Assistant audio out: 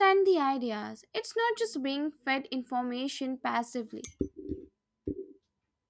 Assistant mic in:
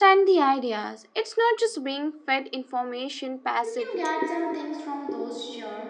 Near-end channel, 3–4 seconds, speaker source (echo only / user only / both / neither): both